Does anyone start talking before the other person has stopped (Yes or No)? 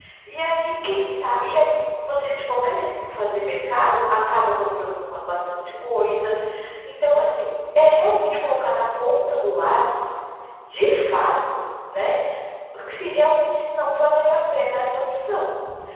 No